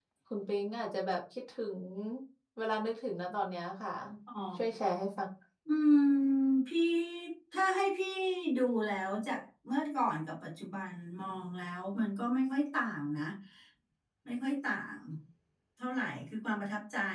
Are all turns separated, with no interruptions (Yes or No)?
Yes